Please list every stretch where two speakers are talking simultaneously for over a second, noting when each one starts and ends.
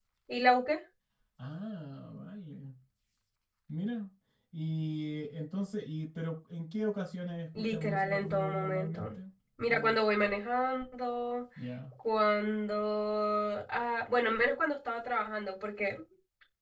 7.6-9.1

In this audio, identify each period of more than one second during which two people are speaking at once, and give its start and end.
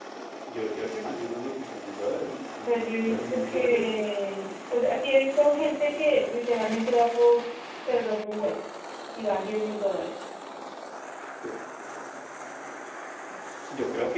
2.6-4.1

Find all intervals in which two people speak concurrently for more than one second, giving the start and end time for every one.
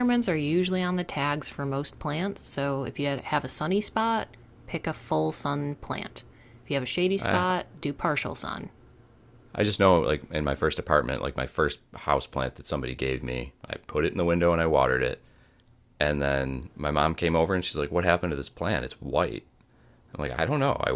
none

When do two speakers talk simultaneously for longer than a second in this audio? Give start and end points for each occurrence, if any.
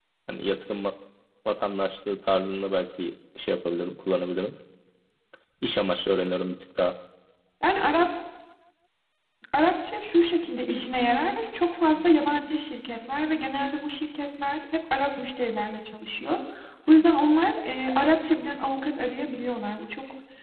none

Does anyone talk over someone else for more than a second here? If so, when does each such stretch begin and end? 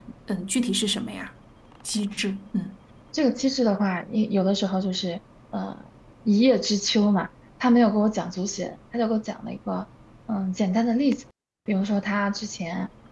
none

